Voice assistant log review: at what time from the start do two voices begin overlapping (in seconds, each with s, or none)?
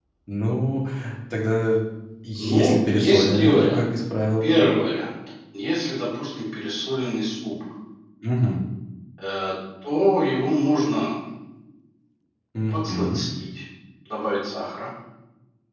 2.4 s